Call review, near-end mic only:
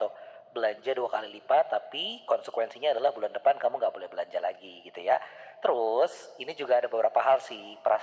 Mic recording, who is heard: echo only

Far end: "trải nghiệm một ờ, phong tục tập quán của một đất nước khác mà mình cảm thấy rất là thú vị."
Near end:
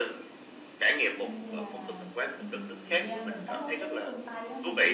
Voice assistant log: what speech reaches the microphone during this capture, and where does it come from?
both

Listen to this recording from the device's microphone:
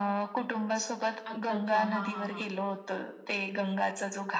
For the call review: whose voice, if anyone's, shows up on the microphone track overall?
both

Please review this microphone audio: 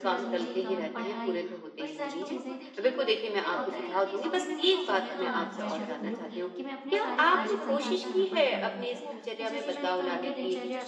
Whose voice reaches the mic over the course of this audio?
both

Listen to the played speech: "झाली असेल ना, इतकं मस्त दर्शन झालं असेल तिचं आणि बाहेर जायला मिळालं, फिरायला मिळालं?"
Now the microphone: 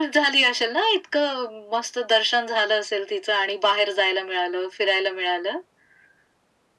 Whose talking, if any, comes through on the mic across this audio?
echo only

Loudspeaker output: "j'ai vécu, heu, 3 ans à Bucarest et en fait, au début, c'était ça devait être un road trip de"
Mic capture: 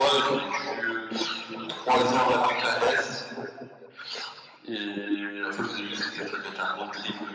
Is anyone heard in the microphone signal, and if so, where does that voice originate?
echo only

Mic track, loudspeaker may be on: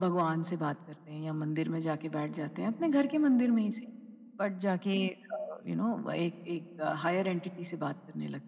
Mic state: echo only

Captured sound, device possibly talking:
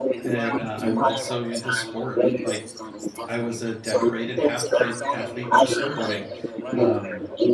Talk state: both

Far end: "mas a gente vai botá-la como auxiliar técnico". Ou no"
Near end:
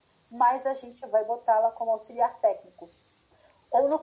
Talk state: echo only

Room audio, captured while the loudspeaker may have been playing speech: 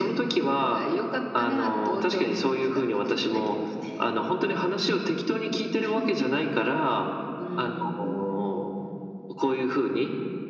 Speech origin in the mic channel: echo only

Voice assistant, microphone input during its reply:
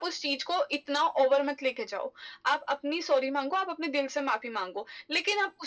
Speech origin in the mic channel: echo only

